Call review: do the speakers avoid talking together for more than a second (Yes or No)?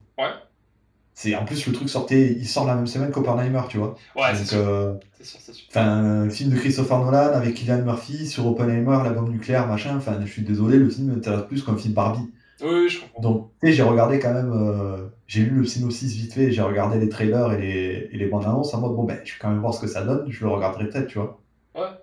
Yes